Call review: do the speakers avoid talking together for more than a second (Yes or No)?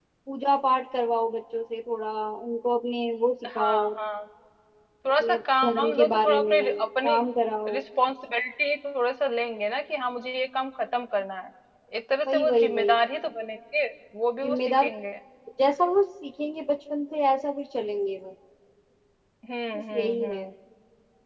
No